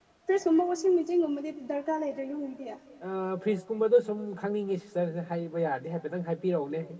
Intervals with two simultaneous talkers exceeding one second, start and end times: none

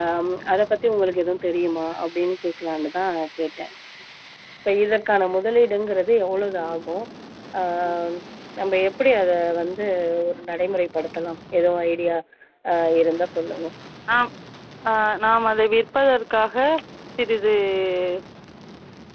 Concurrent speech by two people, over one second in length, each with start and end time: none

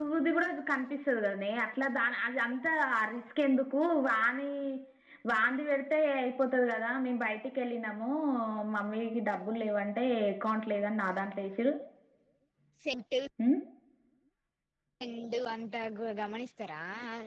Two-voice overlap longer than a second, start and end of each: none

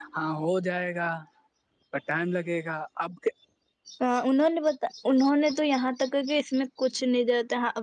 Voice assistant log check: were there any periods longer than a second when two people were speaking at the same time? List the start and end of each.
none

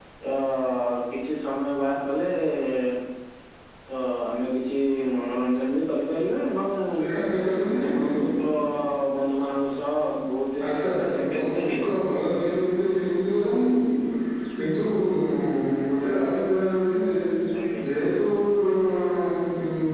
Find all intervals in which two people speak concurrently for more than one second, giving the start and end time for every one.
10.7-12.0

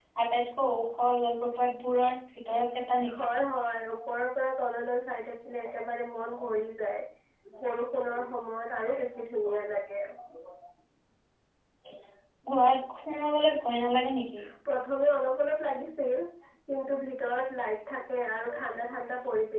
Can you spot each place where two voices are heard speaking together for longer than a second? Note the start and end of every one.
none

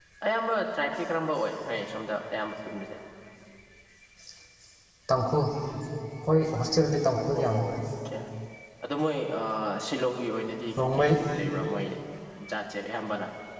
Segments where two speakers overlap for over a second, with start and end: none

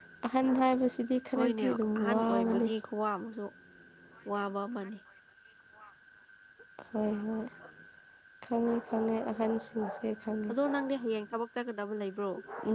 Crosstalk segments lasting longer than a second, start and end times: 1.4-2.7

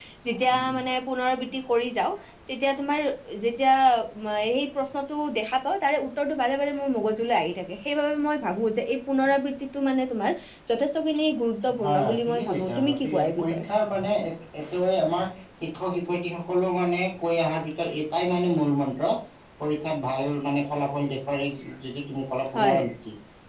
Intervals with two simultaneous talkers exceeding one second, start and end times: 11.8-13.6

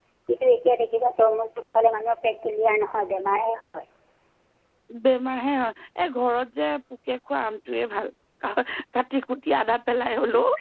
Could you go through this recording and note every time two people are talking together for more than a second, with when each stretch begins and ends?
none

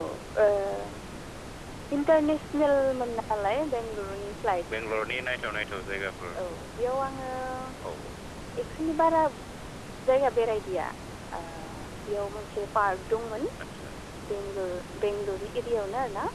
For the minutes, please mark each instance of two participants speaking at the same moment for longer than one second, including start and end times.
none

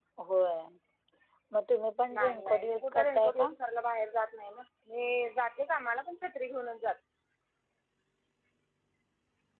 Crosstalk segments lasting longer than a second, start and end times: 2.1-3.5

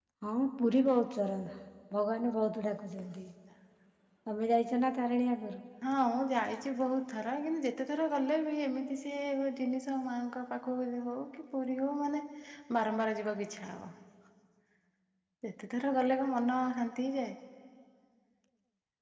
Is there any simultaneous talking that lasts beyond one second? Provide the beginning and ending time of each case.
none

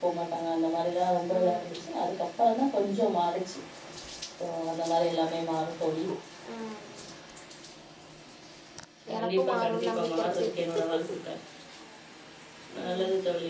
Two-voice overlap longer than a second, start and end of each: 9.2-10.5

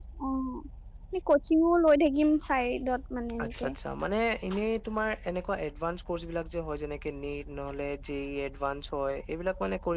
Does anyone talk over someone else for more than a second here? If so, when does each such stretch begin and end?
none

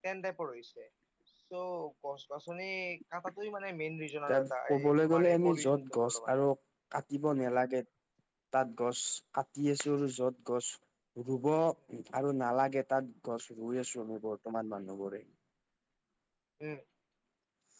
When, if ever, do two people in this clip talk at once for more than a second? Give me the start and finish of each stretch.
4.8-6.3

